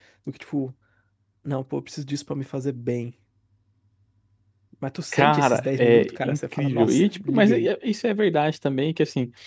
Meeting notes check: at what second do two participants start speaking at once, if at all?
5.1 s

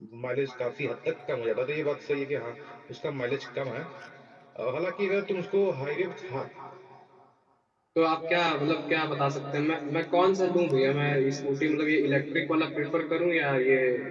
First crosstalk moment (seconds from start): none

